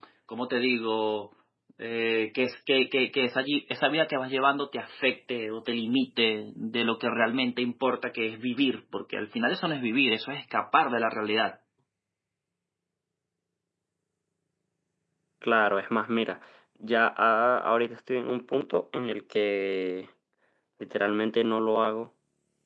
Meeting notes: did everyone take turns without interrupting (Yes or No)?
Yes